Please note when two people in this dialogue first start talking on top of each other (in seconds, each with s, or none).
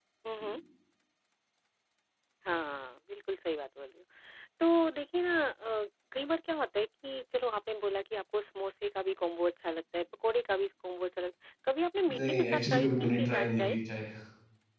12.1 s